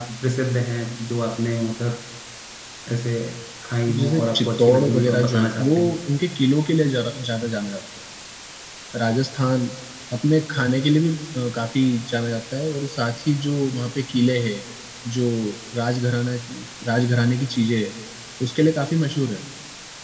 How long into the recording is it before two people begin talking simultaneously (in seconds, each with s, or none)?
4.0 s